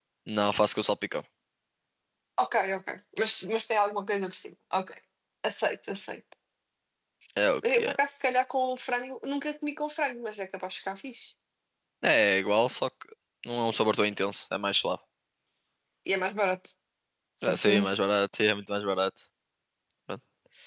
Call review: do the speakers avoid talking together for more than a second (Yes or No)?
Yes